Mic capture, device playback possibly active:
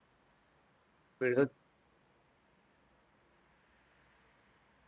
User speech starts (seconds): 1.2 s

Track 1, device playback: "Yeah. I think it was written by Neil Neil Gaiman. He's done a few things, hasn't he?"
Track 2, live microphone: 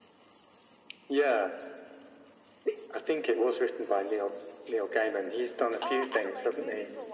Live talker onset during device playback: 5.8 s

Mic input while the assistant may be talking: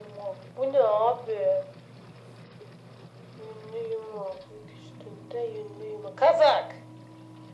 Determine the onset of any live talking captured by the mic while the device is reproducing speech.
none

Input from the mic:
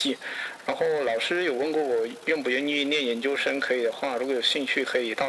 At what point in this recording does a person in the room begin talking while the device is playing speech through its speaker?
none

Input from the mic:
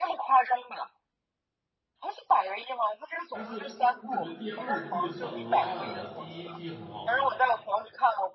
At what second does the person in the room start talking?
3.3 s

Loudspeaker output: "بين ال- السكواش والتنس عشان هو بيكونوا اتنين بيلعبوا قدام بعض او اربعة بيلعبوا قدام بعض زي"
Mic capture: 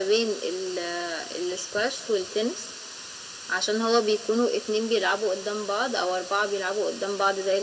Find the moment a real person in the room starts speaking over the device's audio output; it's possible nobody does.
none

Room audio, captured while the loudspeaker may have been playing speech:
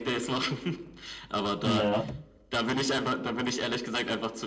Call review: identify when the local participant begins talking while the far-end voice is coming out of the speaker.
1.6 s

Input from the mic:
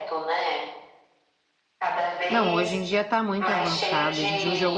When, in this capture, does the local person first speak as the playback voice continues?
2.3 s

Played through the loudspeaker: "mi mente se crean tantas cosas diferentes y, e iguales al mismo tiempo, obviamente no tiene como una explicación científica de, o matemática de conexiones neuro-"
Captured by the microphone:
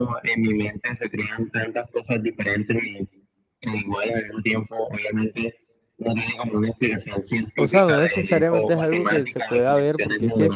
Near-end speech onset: 7.5 s

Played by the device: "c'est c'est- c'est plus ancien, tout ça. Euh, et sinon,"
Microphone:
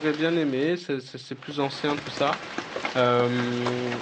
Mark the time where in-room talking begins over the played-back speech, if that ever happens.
none

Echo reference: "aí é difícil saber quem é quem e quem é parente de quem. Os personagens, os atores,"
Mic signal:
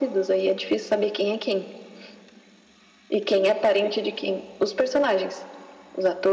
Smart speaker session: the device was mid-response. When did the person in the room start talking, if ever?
none

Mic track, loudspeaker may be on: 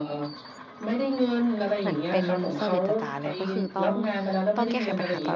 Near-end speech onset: 1.8 s

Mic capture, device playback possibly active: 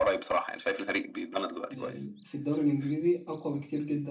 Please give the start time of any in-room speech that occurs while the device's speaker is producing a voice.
1.7 s

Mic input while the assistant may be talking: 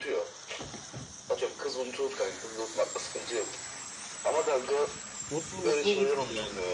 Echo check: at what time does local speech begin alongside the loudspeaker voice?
5.3 s

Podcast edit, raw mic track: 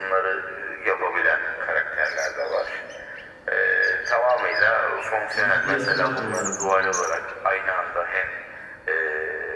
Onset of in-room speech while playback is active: 5.4 s

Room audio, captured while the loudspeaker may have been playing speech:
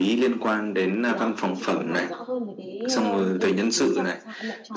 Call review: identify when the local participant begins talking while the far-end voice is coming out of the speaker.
1.1 s

